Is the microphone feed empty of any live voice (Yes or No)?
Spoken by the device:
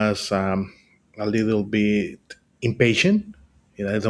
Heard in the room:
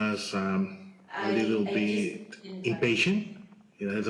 No